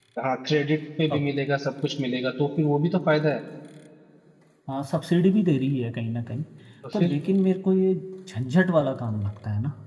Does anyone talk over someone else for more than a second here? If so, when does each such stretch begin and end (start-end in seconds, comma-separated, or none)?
none